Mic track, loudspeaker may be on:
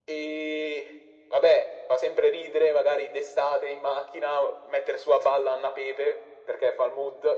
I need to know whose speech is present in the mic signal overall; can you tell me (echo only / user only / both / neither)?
echo only